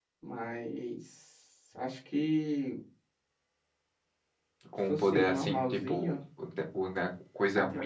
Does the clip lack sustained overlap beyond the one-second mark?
No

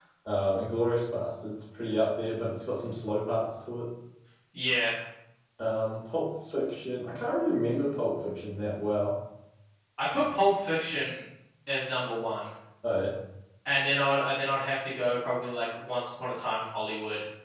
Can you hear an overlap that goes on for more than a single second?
No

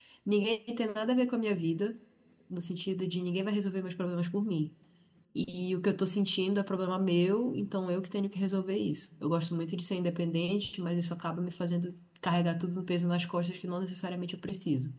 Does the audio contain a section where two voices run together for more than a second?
No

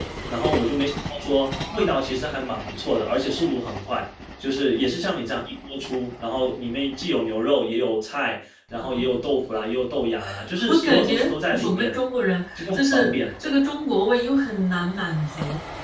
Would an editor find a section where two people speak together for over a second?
Yes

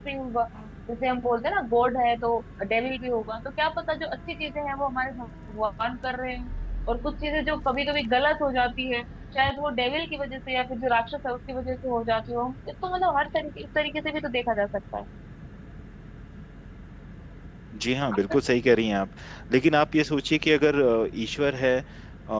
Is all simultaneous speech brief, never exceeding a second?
Yes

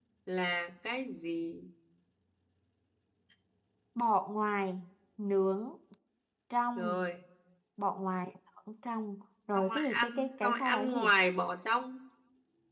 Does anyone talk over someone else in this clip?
Yes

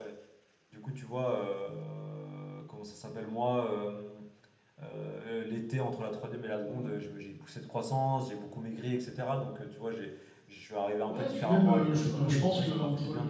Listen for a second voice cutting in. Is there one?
Yes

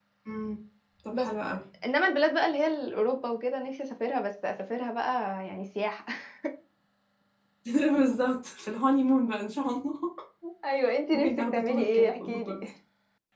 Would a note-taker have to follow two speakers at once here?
Yes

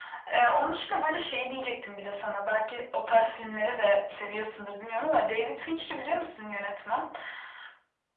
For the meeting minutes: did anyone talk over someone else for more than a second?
No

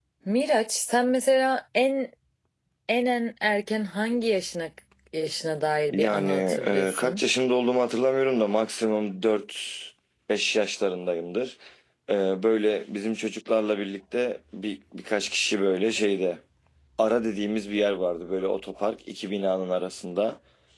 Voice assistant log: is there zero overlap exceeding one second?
No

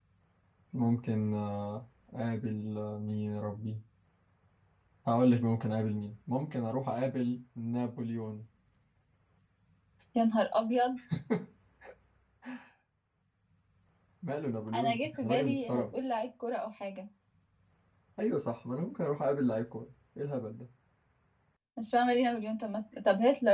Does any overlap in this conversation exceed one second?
Yes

